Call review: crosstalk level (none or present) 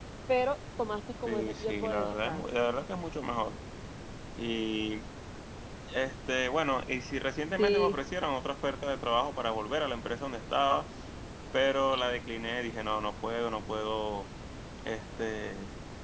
present